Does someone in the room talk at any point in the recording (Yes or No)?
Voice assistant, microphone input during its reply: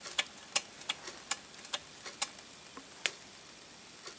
No